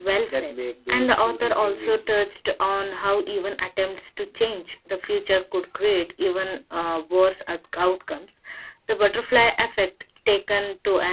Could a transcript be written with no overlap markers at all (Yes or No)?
No